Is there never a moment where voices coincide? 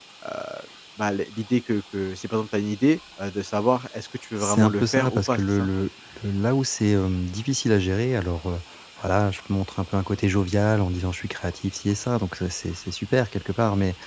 No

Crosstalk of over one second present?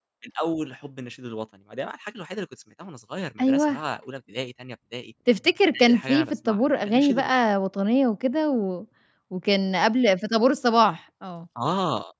Yes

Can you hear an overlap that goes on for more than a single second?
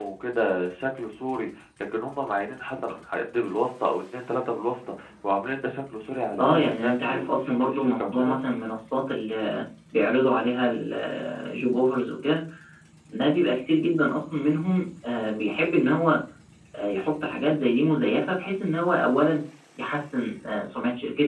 Yes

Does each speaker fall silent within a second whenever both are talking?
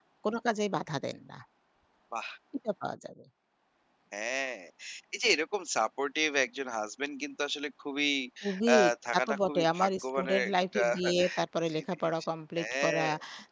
No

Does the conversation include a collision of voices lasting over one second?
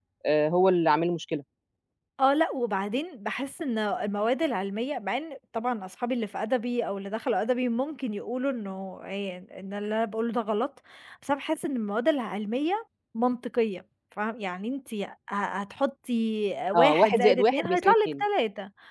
Yes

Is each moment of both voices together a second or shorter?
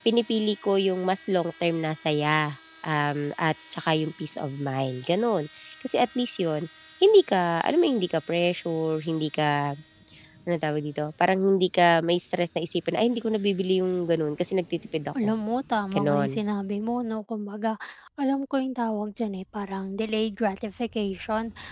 Yes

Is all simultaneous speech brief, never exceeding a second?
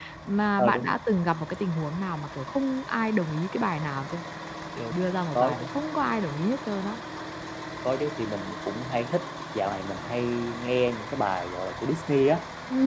Yes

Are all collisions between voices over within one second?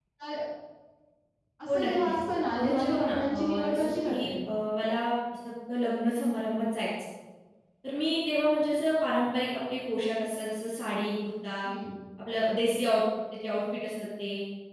No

